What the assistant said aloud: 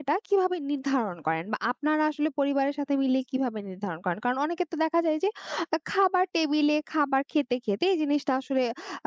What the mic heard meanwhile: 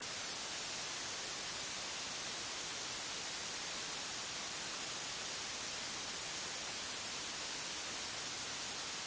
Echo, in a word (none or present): none